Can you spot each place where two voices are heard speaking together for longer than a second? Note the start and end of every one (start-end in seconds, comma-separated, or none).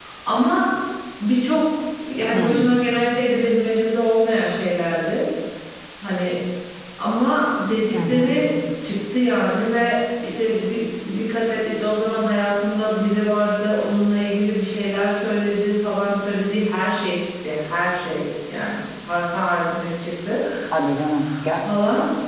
none